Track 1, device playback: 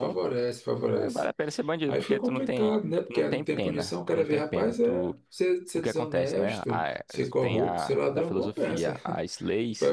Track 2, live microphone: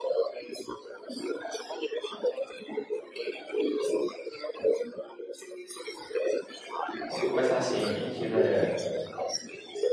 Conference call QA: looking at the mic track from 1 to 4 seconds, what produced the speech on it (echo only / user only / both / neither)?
echo only